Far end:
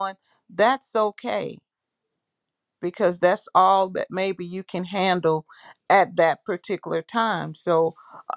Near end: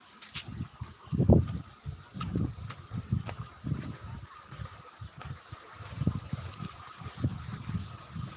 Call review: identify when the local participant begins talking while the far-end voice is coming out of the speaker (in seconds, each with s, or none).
none